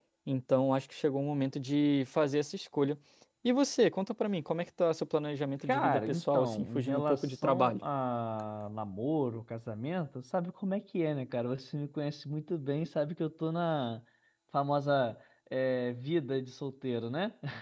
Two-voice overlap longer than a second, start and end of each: 5.7-7.8

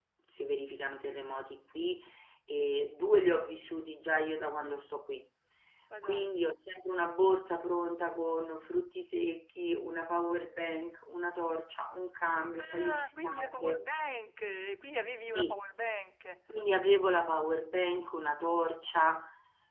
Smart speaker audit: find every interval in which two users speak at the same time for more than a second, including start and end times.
12.6-13.8

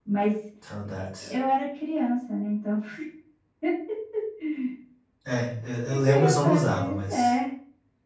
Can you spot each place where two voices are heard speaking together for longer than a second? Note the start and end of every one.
5.9-7.3

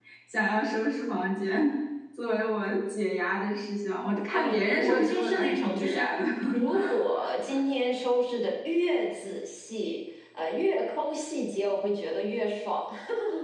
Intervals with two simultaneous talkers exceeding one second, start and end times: 4.3-6.1

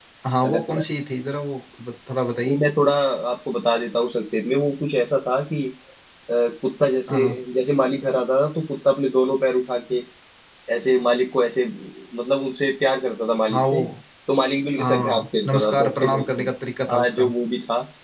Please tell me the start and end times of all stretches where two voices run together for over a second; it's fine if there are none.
14.8-16.5

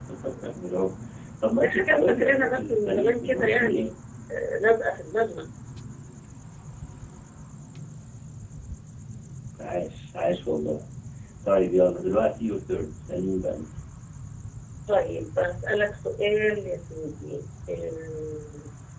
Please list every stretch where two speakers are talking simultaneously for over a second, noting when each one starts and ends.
1.6-3.9

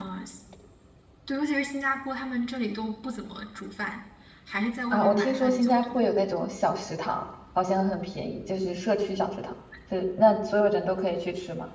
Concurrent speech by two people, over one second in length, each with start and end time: 4.9-6.1

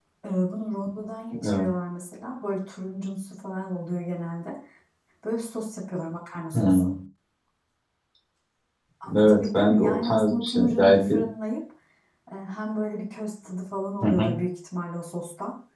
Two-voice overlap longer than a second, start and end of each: 9.2-11.2

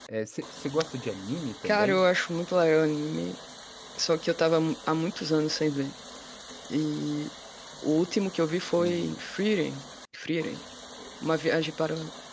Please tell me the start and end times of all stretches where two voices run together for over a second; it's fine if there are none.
none

